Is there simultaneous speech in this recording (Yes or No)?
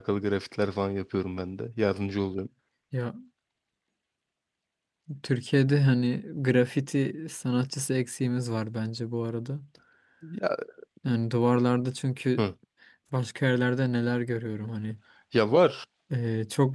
No